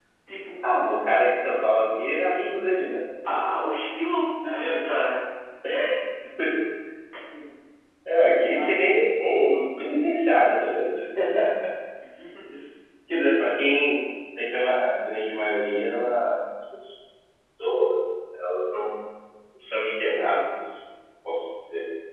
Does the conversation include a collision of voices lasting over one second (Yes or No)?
No